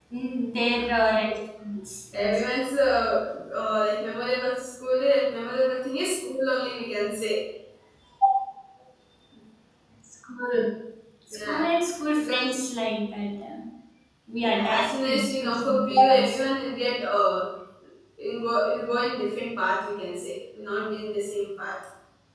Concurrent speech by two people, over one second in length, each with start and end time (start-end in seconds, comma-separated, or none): 14.4-16.4